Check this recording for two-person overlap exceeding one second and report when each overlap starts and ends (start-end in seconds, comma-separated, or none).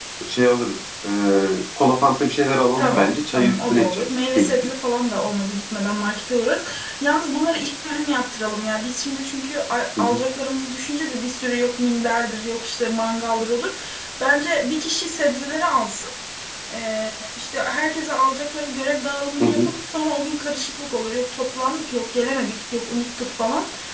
2.8-4.7